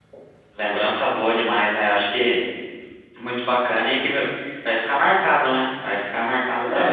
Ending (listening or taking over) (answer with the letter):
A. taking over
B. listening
A